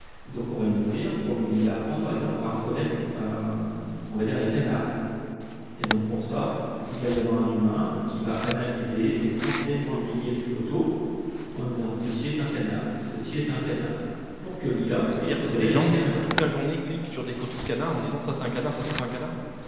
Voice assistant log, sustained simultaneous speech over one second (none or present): present